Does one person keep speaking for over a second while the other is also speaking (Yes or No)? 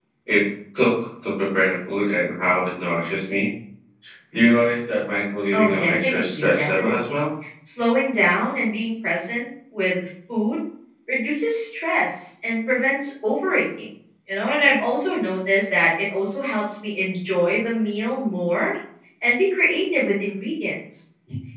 Yes